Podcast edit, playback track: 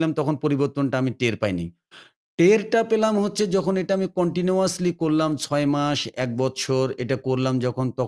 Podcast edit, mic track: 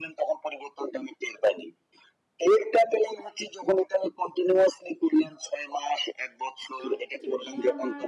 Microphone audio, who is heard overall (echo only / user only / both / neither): both